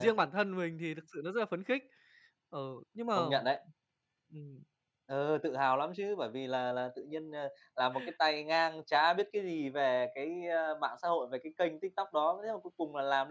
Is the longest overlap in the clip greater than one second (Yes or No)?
No